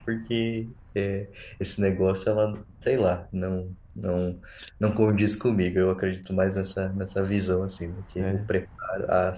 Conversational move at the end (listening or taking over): listening